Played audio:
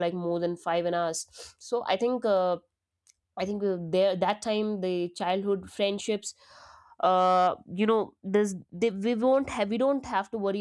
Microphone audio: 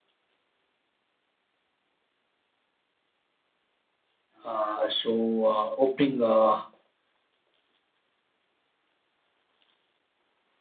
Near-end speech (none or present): present